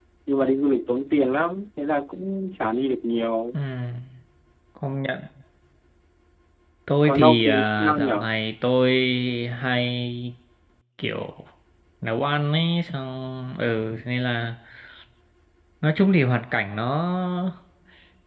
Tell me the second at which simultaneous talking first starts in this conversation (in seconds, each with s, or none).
7.0 s